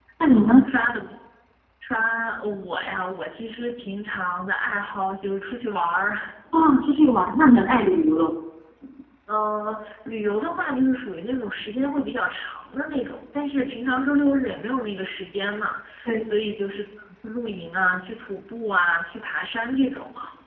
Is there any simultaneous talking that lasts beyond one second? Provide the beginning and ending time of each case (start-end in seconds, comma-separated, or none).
none